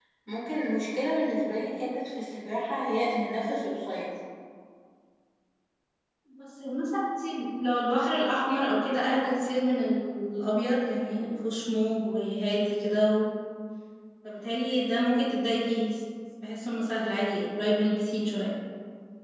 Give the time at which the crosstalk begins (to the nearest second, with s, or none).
none